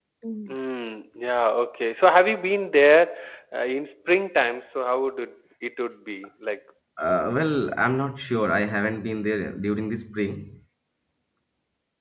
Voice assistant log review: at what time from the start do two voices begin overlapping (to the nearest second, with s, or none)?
none